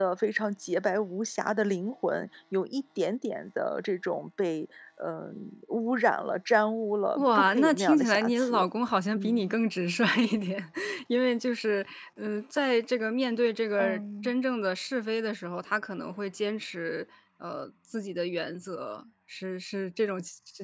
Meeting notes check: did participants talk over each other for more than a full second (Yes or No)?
Yes